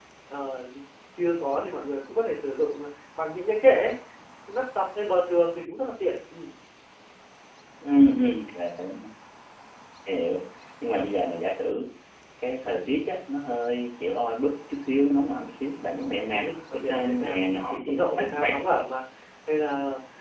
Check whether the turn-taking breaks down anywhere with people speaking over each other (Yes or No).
Yes